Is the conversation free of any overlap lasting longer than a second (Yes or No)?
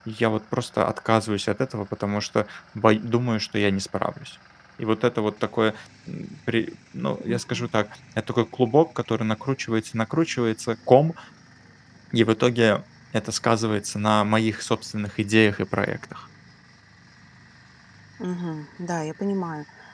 Yes